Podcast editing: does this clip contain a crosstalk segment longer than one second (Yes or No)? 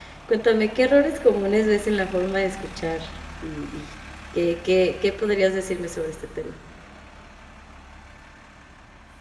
No